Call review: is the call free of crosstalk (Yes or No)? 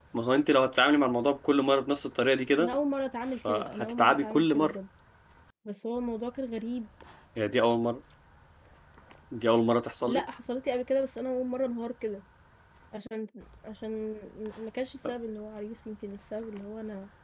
No